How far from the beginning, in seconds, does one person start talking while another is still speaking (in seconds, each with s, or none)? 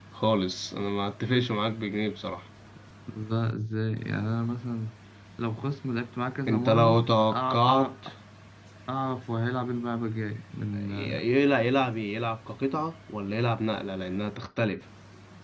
6.5 s